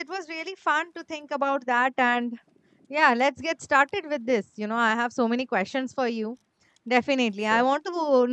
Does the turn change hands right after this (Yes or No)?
No